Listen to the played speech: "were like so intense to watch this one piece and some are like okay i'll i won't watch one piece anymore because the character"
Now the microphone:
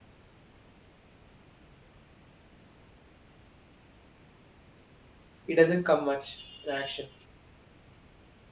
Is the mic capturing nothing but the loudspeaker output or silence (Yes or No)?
No